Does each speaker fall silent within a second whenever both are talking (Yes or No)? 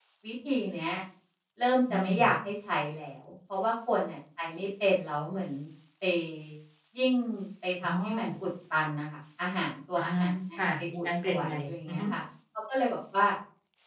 No